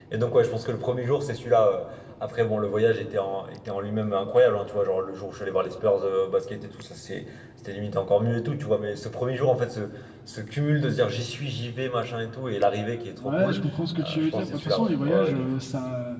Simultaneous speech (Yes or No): Yes